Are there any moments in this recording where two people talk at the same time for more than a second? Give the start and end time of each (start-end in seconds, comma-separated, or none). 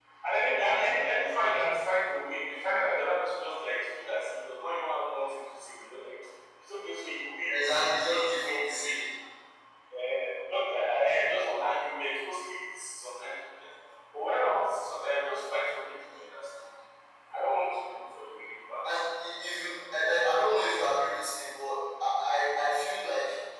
7.5-9.1